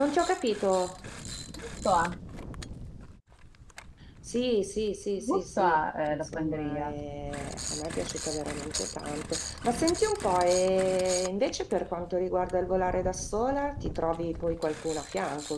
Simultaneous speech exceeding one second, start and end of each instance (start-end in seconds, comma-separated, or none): 5.2-6.9